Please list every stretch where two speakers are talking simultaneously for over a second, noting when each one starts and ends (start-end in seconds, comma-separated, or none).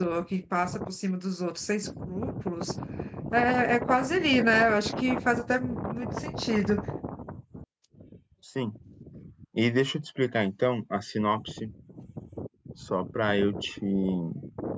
none